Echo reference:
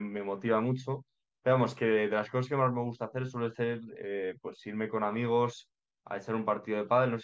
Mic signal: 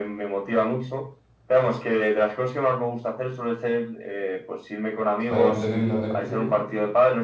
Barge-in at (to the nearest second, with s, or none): 5 s